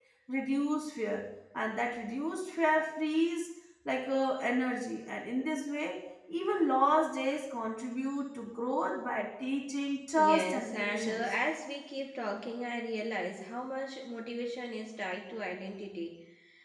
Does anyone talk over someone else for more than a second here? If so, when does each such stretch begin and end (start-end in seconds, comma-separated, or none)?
10.1-11.3